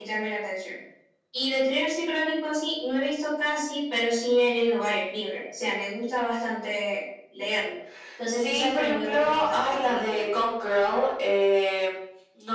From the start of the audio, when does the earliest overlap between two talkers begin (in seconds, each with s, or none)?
8.4 s